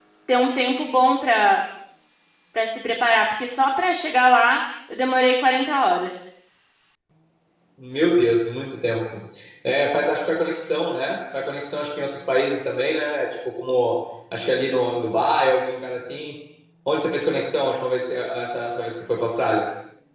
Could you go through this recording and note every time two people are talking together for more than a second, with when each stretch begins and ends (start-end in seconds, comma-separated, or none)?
none